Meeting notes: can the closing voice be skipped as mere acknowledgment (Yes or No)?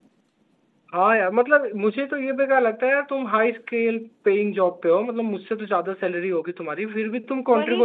No